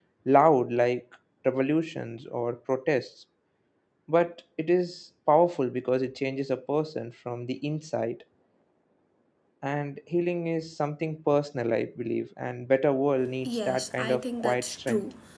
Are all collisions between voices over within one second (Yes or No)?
No